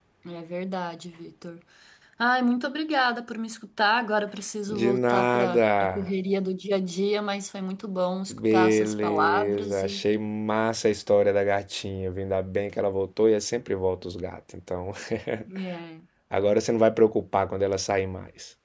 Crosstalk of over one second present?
Yes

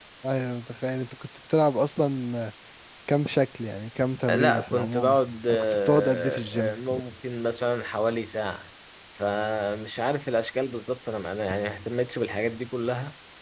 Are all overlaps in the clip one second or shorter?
No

